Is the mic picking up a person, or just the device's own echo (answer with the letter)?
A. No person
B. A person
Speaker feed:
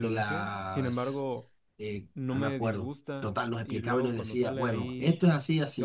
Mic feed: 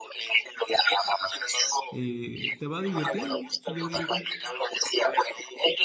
B